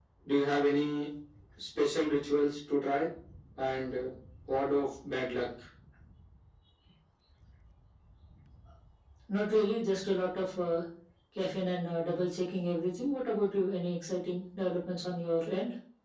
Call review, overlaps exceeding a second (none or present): none